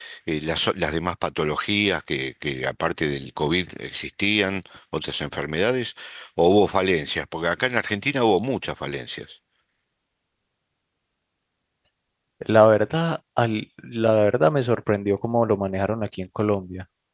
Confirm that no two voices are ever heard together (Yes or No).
Yes